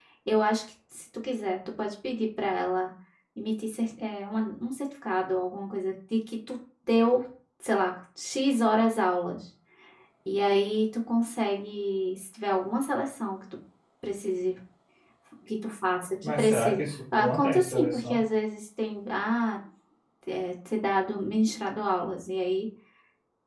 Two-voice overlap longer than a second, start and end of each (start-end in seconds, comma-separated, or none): 16.2-18.2